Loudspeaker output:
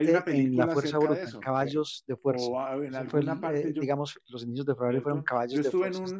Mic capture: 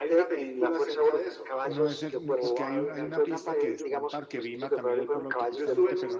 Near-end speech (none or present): present